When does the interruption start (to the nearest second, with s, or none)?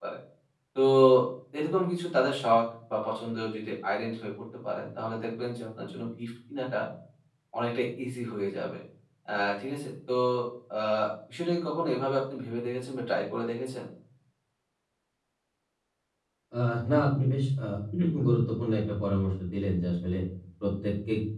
none